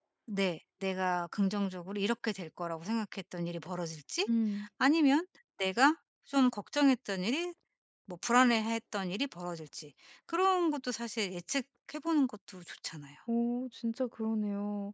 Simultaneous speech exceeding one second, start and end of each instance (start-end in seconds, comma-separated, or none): none